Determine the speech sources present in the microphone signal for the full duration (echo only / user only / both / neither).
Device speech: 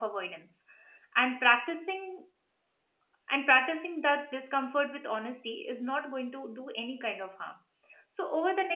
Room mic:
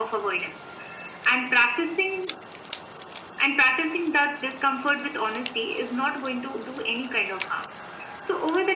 echo only